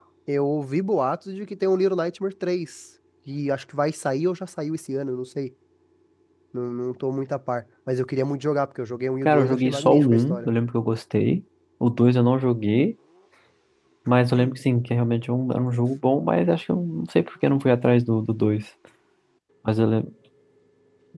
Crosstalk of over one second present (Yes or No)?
Yes